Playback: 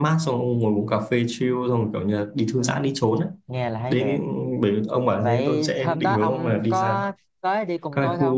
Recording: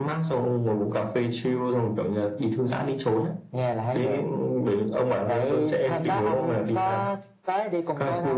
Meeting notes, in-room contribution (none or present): none